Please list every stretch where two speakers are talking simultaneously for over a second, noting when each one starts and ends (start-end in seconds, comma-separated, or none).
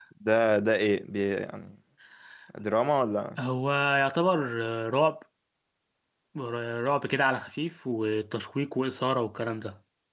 none